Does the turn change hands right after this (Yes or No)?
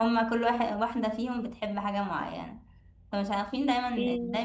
No